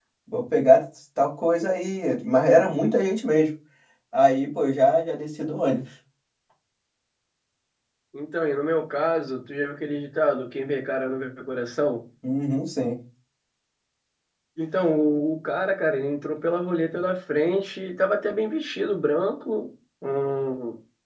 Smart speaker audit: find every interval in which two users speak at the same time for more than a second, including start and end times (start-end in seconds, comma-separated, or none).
none